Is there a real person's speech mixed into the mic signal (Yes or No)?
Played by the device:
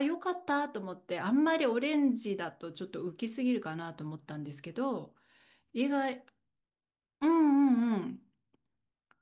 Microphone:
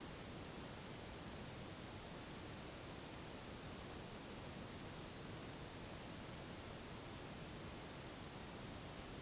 No